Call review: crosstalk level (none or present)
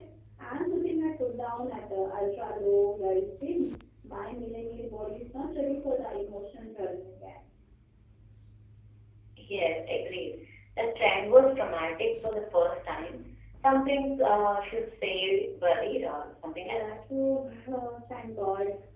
none